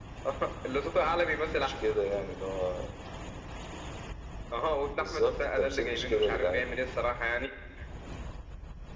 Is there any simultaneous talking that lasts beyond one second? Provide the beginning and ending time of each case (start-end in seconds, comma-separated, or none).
4.9-6.7